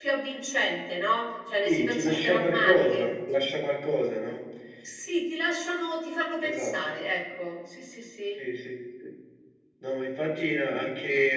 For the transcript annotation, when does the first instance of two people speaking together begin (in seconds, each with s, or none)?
1.6 s